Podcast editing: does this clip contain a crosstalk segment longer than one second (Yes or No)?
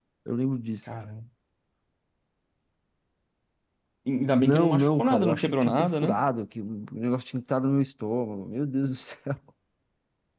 Yes